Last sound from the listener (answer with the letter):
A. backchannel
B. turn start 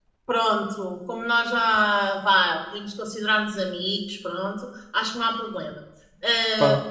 A